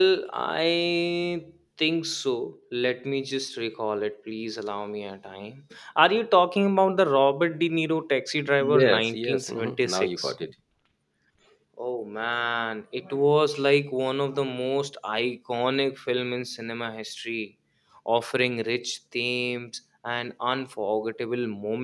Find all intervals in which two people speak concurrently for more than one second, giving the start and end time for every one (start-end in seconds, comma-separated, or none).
8.7-10.3